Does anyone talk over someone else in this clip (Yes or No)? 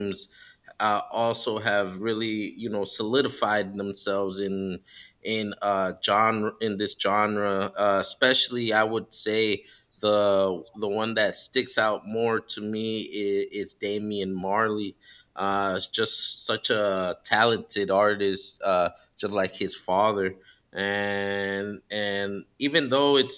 No